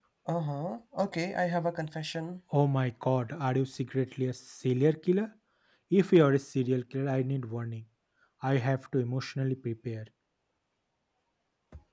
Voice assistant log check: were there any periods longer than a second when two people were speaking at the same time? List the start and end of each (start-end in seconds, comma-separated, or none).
none